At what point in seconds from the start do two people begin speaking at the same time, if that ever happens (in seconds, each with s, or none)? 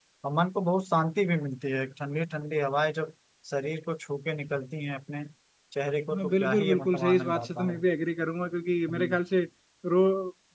6.1 s